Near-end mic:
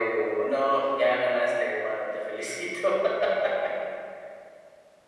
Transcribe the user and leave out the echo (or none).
none